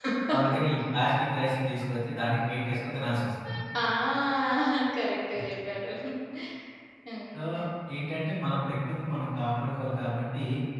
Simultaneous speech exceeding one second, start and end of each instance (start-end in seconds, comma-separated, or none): none